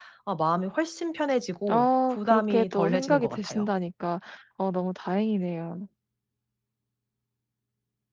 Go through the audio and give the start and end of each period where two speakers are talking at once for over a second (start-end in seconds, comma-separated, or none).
1.7-3.7